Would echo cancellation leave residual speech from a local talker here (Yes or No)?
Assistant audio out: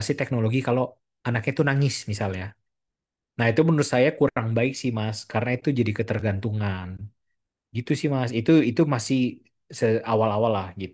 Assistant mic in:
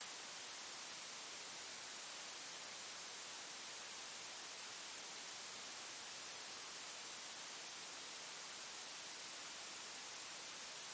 No